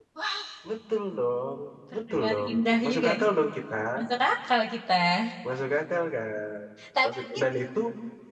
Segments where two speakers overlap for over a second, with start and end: 1.9-3.2

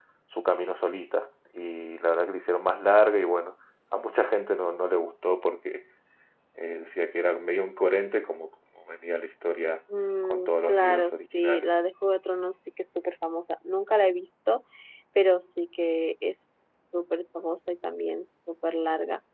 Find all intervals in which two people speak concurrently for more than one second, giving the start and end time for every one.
10.2-11.7

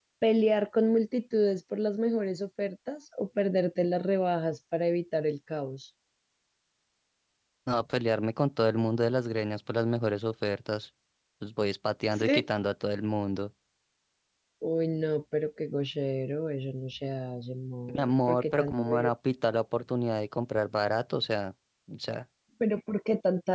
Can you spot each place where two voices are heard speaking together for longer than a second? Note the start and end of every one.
17.9-19.1

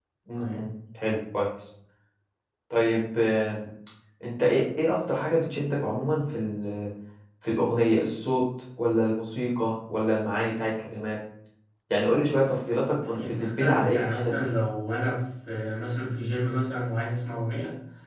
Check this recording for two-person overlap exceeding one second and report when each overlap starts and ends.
13.1-14.5

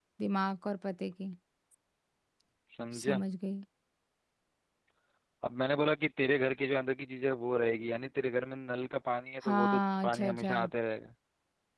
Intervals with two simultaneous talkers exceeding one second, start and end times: 9.4-10.6

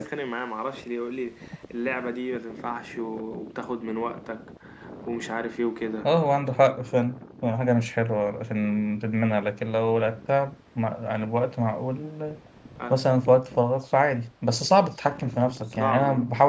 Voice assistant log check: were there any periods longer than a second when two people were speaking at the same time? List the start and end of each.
none

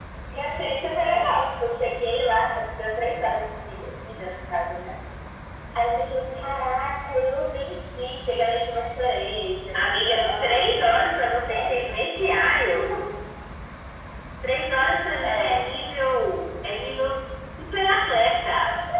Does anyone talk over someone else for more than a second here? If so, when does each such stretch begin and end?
9.7-12.2

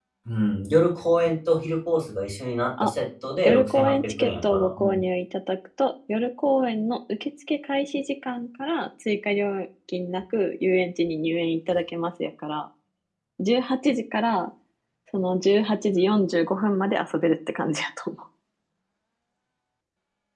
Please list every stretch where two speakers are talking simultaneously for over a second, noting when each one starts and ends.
3.4-5.0

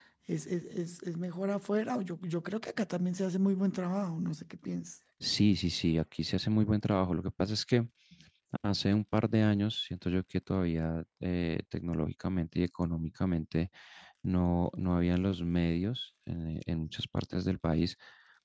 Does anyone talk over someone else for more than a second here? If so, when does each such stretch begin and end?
none

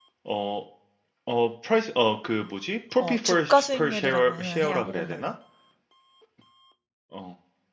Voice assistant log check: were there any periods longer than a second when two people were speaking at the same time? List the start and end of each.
3.0-5.3

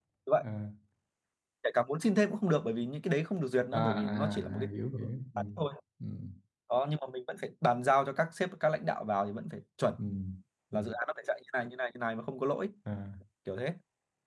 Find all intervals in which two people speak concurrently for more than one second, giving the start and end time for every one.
3.7-5.0

